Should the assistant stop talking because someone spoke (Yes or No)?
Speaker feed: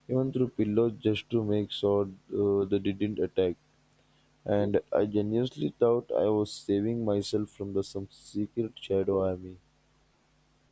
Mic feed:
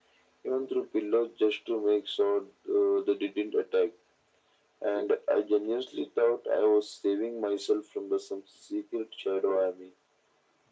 No